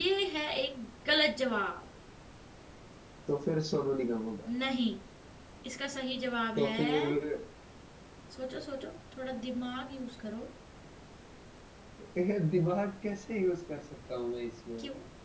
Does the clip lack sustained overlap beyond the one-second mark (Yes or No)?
Yes